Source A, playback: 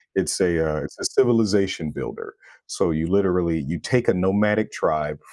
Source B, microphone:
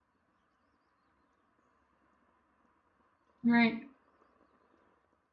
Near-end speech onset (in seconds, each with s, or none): 3.4 s